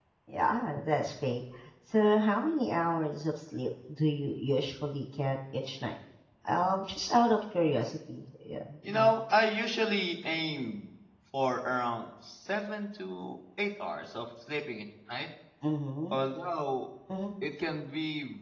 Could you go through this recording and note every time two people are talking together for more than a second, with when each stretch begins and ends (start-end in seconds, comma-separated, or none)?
none